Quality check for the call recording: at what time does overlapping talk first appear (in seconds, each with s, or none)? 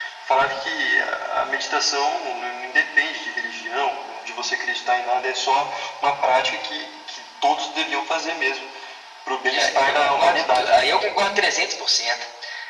9.5 s